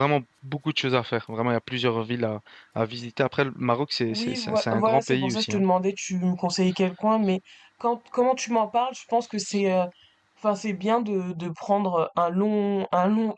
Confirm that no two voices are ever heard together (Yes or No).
No